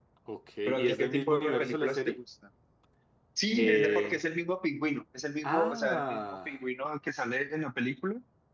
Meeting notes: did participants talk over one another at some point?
Yes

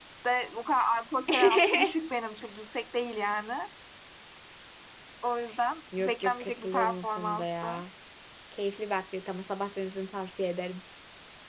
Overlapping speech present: Yes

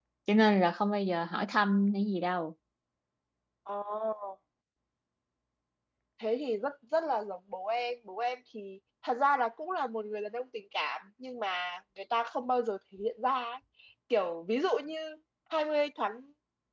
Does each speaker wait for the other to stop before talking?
Yes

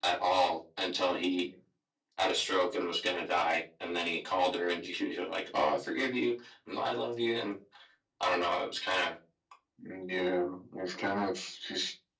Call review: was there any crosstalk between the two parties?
No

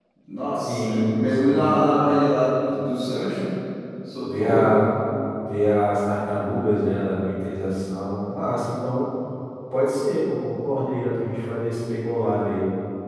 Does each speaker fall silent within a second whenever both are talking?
No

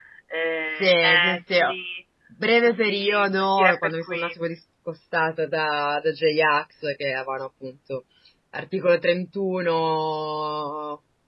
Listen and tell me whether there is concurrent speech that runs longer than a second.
Yes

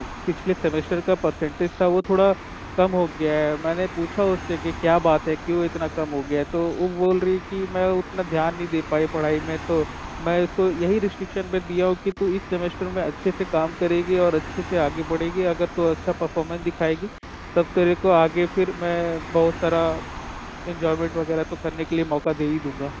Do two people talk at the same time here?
No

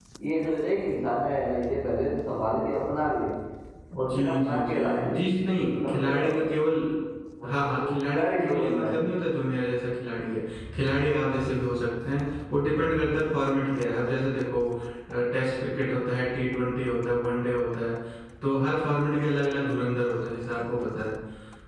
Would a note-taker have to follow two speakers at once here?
Yes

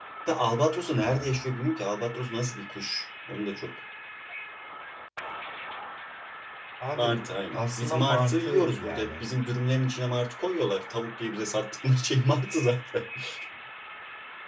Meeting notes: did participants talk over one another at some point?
Yes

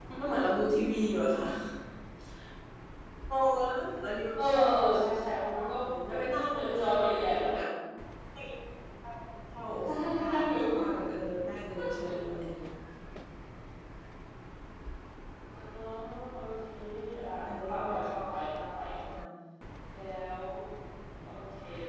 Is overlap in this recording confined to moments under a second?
No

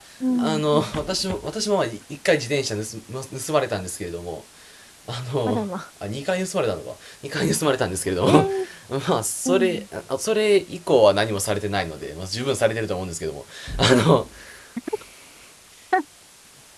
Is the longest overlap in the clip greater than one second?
No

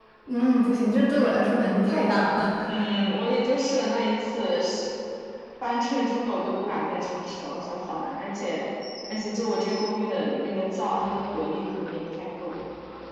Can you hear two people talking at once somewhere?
No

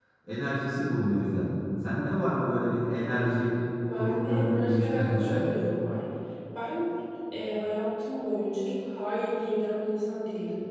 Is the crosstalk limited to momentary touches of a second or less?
No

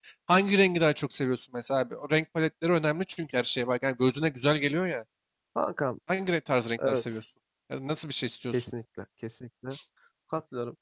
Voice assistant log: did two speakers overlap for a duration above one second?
No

